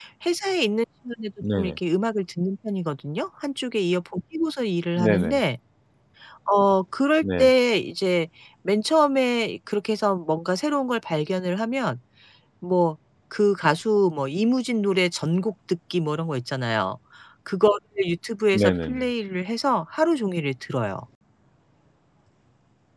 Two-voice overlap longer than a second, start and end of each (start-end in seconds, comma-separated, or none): none